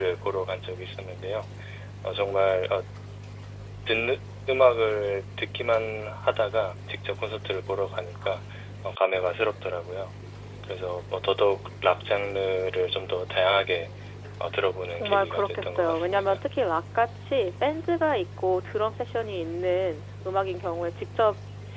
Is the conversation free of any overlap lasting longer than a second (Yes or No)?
No